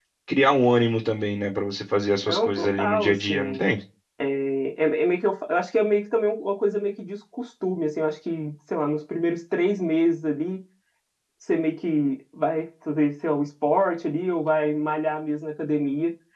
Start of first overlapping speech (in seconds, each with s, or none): 2.2 s